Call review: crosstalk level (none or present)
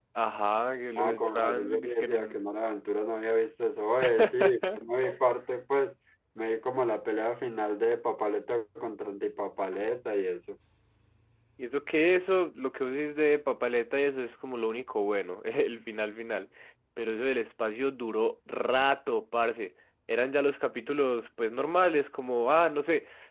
present